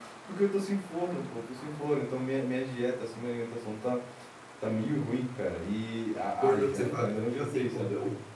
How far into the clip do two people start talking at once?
6.4 s

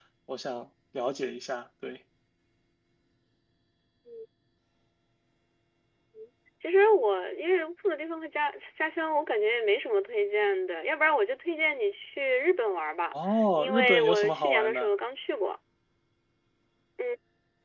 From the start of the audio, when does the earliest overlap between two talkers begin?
13.6 s

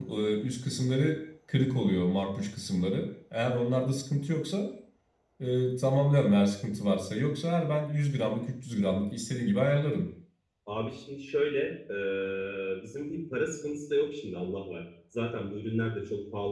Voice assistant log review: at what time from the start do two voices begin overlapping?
none

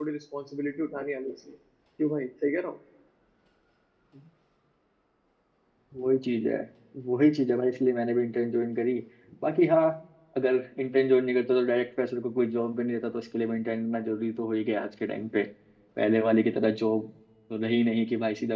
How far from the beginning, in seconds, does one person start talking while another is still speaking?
none

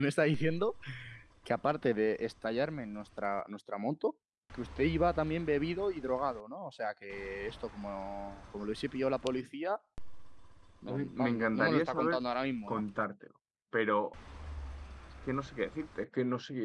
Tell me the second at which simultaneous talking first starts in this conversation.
10.9 s

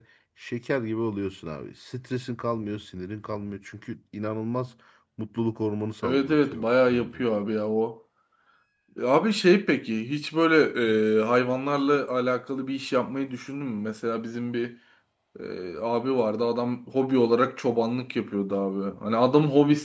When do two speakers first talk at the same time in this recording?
6.0 s

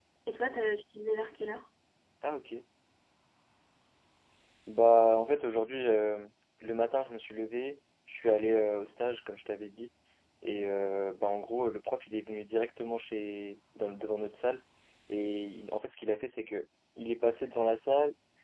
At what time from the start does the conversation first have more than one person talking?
none

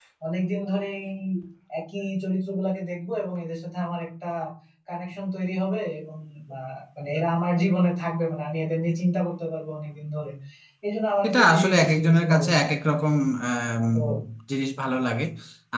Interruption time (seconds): 11.3 s

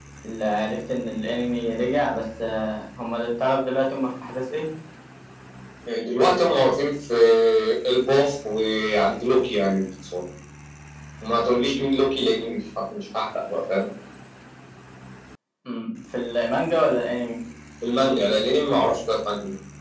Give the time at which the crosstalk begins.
none

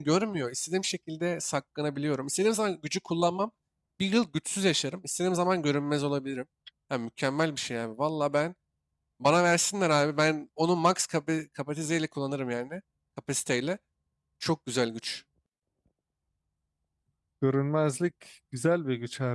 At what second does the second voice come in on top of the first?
none

